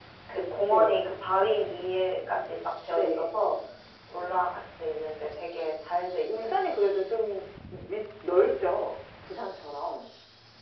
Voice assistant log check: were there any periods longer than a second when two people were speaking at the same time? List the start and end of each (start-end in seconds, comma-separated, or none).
none